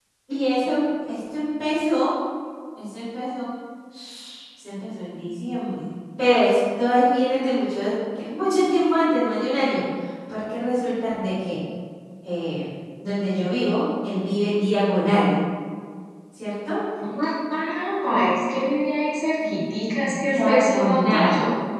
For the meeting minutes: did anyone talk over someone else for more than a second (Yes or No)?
Yes